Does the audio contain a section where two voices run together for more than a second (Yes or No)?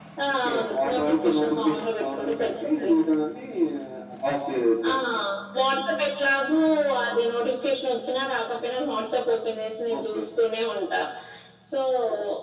Yes